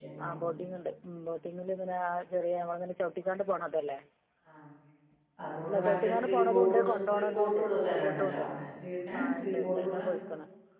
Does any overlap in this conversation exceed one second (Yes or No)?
Yes